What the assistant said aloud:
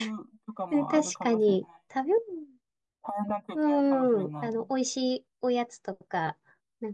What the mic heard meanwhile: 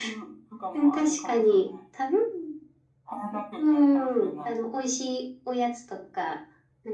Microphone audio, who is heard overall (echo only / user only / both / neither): echo only